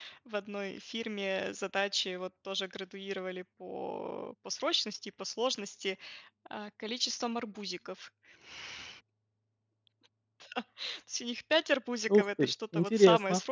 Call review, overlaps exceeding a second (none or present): present